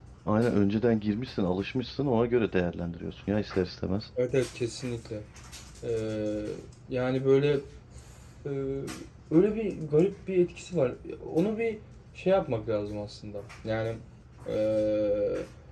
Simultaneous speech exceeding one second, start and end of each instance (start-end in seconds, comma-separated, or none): none